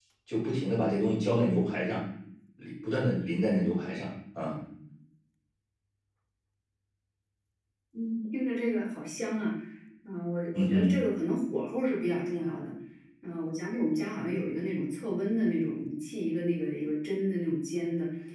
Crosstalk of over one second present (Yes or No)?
No